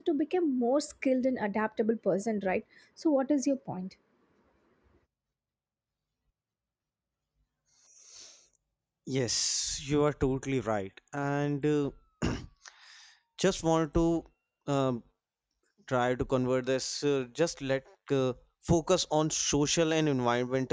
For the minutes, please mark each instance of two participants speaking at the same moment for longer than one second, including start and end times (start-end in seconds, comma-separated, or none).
none